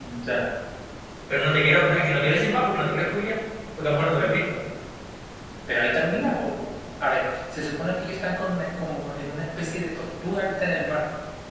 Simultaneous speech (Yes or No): No